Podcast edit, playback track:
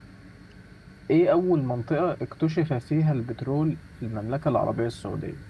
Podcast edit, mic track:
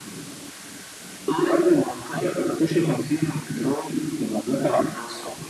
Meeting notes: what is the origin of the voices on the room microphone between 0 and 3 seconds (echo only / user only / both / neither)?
echo only